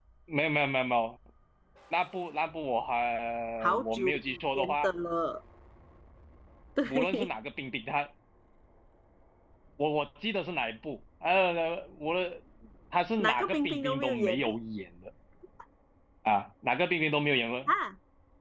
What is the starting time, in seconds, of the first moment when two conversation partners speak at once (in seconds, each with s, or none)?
3.6 s